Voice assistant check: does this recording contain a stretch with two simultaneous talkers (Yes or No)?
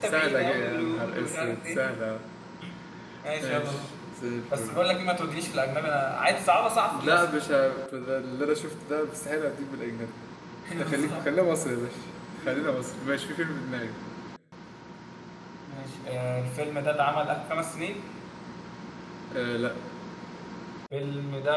Yes